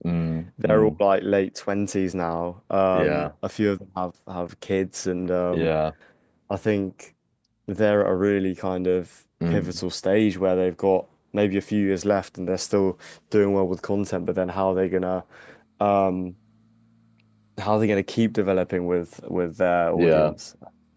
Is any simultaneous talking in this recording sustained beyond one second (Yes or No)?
No